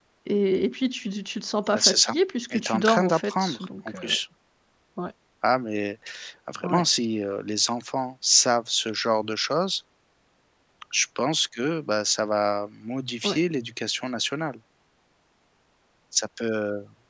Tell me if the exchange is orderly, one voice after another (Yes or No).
No